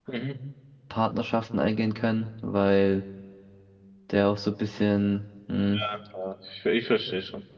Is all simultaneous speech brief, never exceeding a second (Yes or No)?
Yes